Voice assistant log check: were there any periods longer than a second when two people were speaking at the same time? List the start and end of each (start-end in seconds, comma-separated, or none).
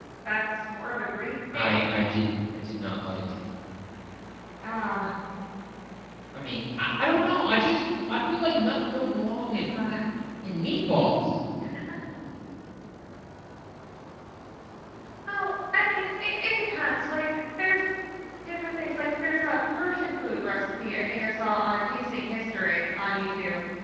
none